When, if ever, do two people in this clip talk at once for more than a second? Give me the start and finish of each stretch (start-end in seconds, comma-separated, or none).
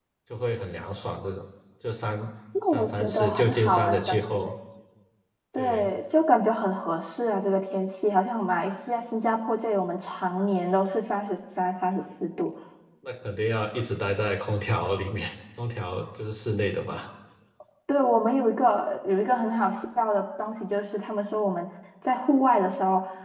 2.6-4.2